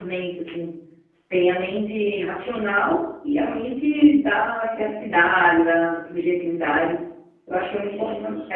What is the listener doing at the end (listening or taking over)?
listening